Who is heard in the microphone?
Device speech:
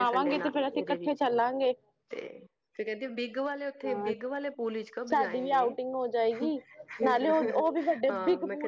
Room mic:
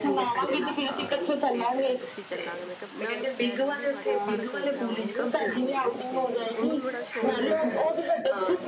both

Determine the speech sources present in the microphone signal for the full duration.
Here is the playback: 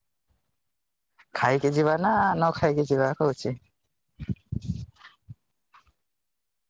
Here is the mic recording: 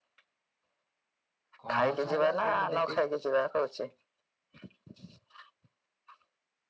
both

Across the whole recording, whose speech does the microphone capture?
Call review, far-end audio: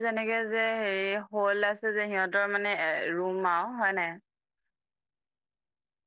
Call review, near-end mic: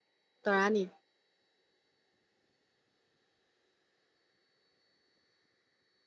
user only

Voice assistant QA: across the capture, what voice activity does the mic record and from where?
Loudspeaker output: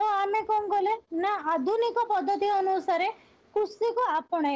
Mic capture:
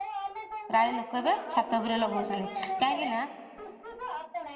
both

